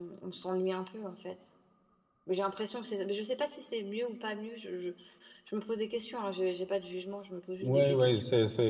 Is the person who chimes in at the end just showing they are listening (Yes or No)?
No